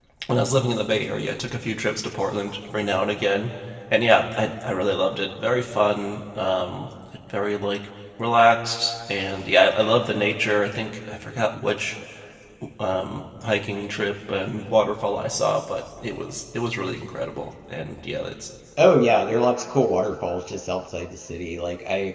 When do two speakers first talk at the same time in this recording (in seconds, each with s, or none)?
none